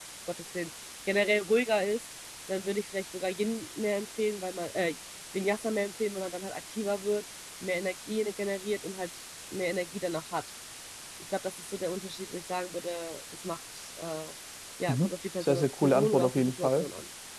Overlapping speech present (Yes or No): Yes